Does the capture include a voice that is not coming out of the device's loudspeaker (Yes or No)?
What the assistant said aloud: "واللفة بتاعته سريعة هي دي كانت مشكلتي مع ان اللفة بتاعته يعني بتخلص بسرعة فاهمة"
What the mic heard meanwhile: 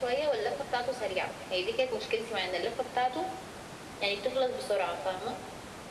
No